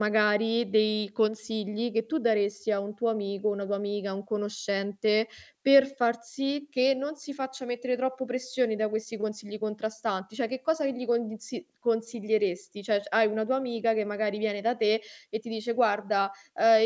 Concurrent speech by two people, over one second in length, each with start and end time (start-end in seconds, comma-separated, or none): none